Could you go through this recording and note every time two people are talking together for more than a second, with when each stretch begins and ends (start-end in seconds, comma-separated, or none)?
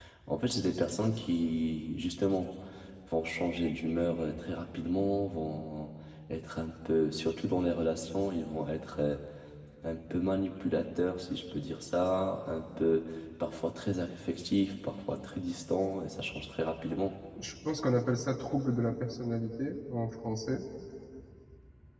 none